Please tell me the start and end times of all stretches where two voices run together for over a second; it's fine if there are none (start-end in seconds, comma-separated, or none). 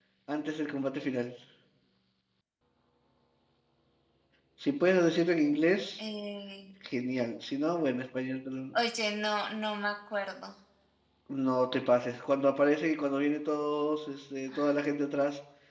none